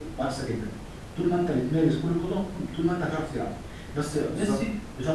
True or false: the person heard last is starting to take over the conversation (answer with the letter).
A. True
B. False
B